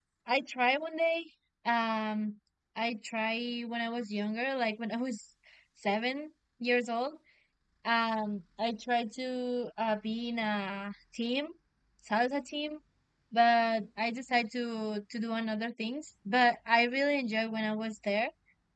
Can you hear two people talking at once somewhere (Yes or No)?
No